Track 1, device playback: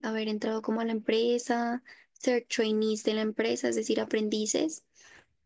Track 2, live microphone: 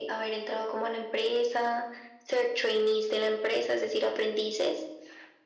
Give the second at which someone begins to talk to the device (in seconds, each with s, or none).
none